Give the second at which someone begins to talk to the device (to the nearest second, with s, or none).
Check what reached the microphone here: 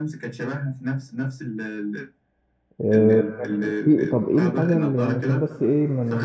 3 s